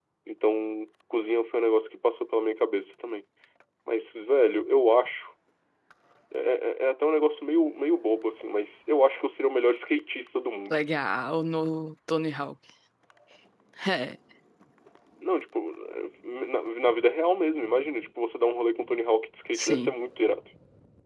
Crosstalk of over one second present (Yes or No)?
No